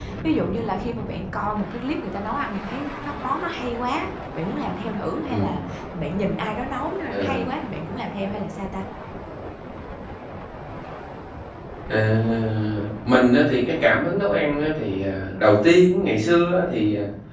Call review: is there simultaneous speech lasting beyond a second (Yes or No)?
No